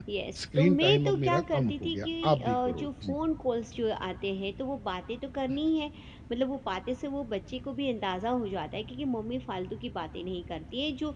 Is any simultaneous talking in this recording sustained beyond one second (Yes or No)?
Yes